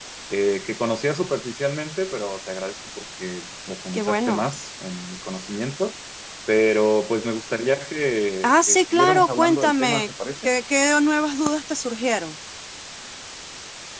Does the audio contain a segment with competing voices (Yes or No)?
Yes